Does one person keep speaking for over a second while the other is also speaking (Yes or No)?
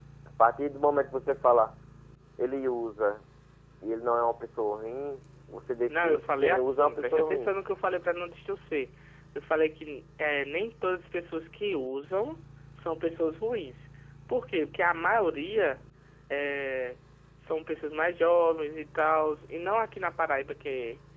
Yes